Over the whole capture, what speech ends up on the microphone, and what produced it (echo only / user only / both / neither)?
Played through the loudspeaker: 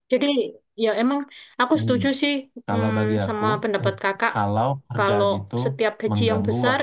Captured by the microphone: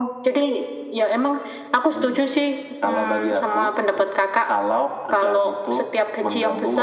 echo only